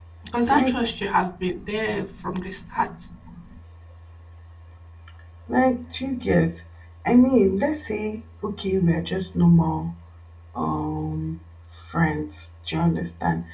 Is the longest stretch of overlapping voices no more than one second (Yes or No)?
Yes